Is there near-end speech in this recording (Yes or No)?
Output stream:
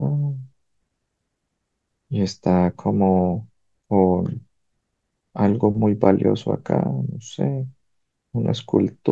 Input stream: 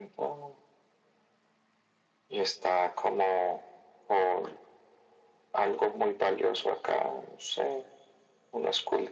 No